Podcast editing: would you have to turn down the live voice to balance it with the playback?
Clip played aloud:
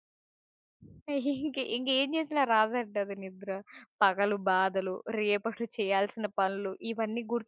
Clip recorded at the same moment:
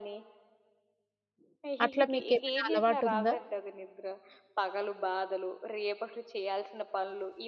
Yes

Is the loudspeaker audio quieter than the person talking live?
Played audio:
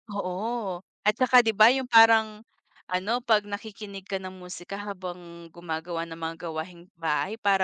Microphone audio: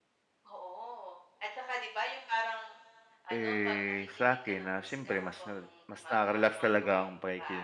Yes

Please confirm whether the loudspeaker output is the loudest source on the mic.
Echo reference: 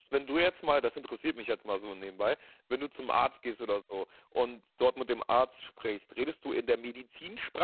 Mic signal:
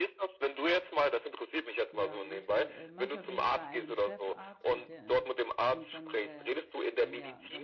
Yes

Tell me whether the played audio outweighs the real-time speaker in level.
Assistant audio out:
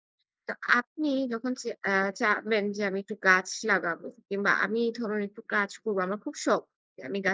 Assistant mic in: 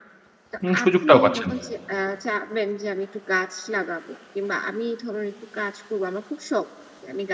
No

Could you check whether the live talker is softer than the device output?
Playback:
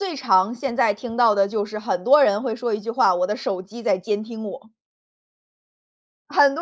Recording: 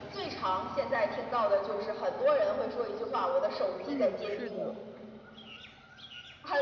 Yes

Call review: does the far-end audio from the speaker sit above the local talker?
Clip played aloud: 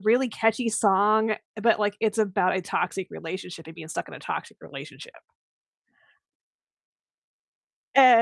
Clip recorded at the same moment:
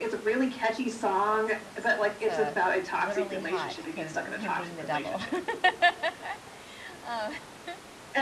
Yes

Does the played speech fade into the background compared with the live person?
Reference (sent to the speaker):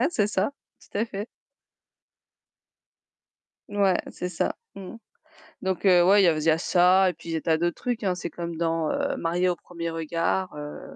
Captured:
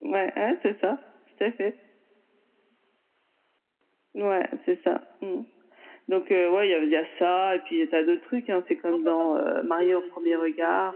No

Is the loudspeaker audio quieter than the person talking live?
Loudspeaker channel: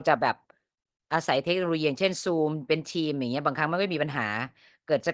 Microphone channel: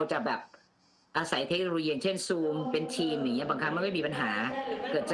No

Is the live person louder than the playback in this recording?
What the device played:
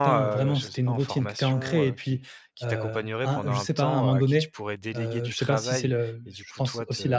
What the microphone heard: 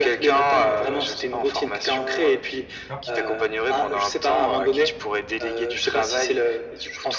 No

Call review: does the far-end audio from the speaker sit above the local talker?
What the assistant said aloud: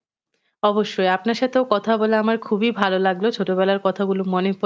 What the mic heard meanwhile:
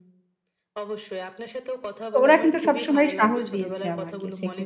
No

